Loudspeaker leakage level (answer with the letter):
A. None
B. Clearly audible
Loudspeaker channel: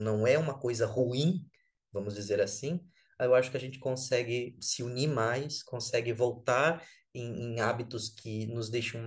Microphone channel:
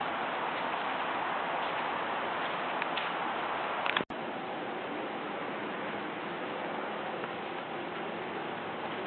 A